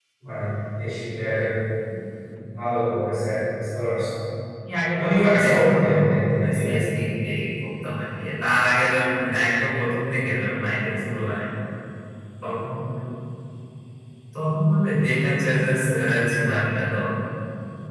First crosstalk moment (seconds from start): 5 s

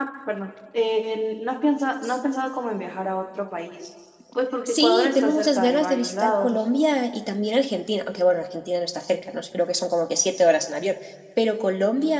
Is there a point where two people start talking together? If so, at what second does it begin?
5 s

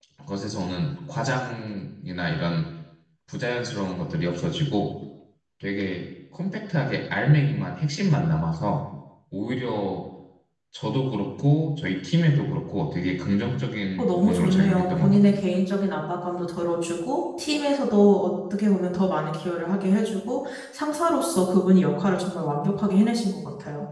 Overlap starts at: 14 s

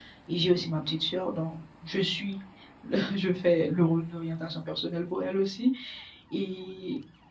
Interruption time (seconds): none

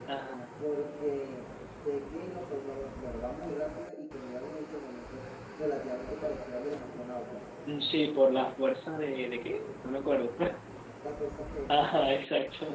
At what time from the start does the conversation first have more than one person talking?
none

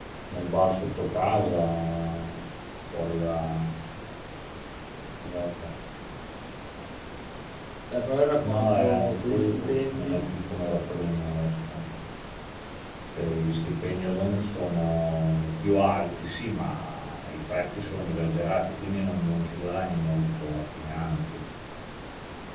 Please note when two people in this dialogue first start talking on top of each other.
8 s

